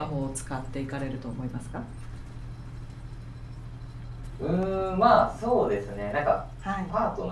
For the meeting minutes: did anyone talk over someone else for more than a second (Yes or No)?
No